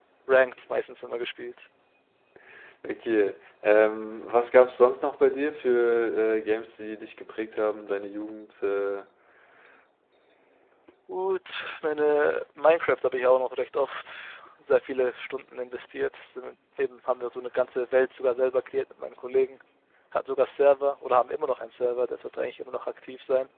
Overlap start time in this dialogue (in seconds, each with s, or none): none